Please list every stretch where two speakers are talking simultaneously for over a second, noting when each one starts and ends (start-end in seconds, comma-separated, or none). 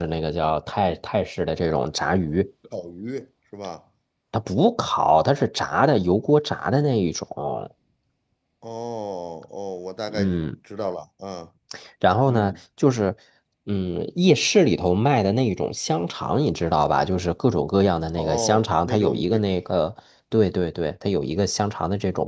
18.2-19.4